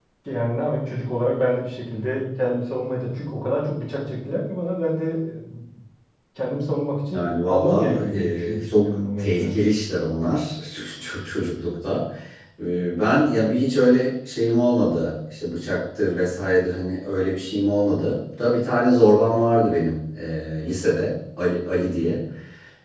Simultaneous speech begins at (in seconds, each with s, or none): 7.1 s